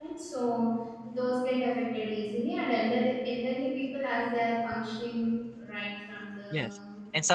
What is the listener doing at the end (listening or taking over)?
taking over